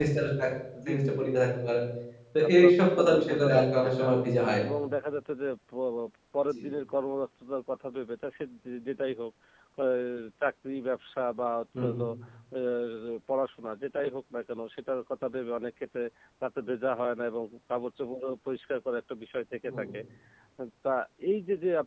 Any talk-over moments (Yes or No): Yes